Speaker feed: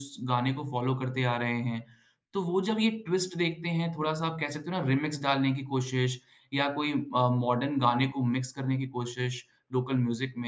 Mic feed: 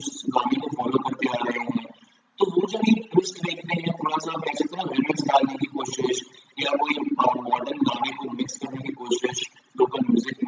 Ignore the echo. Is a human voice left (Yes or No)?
No